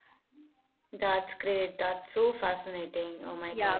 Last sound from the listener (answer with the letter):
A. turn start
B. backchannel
A